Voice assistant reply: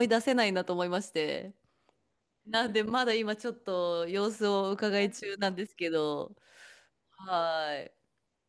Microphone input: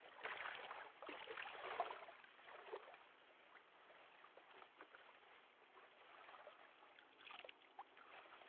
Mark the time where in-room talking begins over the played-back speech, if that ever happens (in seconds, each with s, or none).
none